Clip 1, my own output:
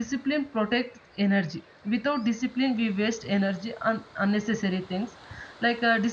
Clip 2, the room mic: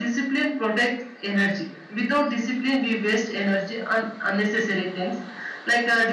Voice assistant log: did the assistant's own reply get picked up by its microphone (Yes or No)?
Yes